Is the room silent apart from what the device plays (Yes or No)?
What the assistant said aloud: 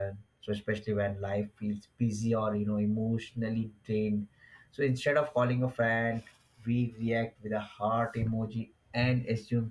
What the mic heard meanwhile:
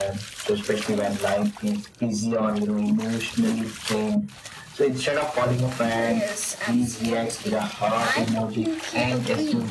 No